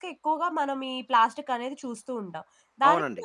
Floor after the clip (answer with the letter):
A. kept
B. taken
A